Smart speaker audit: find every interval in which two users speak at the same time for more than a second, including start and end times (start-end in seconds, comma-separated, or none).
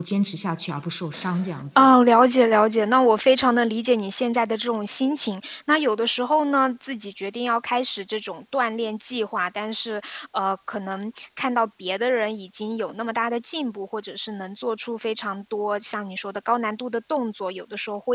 none